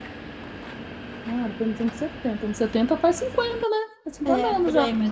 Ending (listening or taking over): taking over